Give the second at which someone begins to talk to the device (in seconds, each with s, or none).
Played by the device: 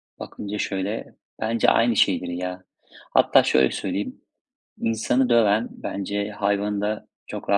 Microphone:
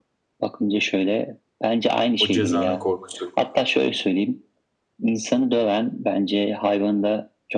2.2 s